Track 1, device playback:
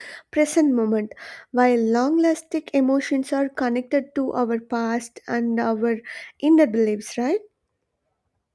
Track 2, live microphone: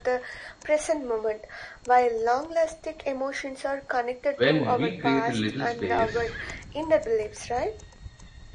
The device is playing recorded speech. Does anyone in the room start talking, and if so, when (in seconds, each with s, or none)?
4.4 s